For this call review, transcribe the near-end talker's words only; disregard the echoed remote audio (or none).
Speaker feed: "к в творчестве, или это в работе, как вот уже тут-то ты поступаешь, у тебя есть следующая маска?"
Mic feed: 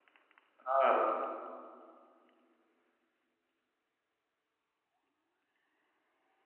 А,